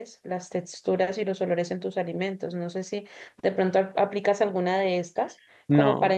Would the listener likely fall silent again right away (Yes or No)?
Yes